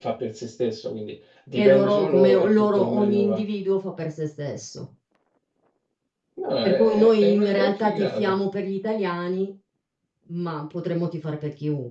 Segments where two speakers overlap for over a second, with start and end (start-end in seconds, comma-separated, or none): 1.6-3.4, 6.6-8.3